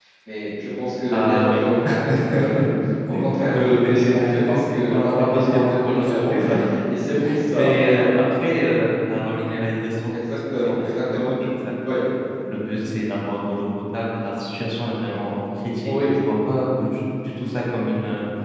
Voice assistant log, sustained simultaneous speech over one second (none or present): present